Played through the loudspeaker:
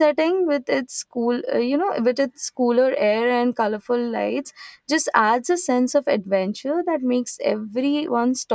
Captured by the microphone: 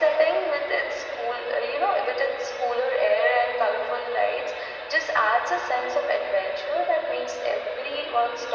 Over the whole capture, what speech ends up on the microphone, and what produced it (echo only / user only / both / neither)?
echo only